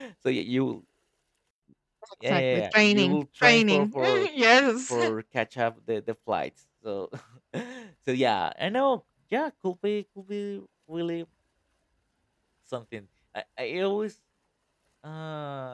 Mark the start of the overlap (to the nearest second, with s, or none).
2 s